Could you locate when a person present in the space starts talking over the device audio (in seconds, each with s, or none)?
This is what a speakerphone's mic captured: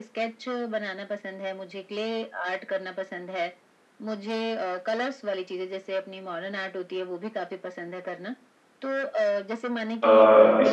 9.8 s